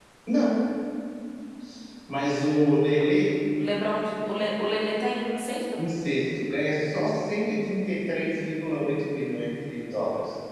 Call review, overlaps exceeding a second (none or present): none